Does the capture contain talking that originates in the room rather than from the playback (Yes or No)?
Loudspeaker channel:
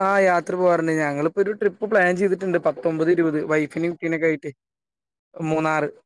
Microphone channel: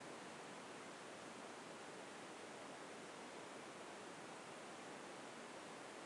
No